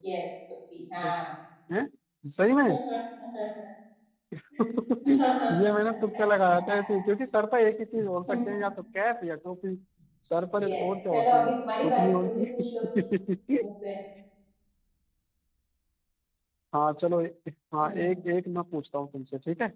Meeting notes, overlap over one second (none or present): present